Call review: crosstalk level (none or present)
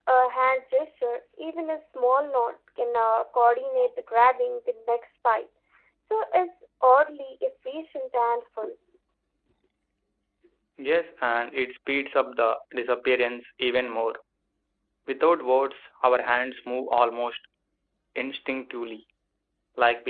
none